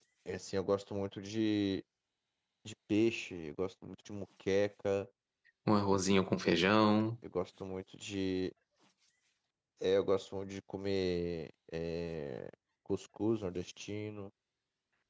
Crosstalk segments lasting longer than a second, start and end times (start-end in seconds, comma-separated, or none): none